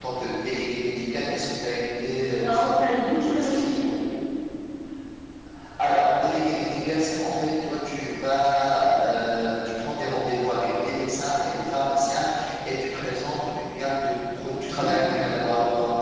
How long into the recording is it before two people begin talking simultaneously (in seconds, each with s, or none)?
2.4 s